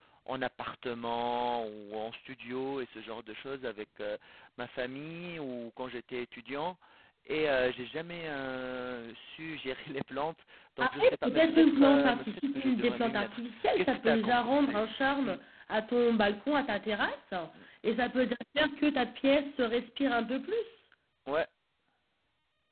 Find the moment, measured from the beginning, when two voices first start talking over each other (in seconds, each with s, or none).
10.8 s